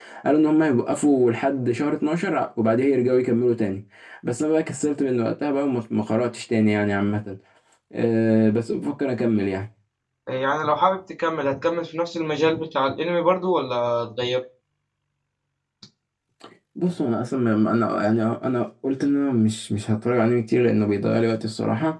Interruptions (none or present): none